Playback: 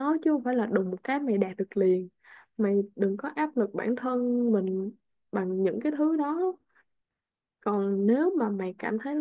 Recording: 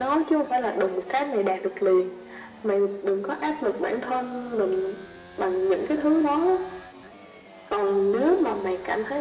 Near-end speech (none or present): none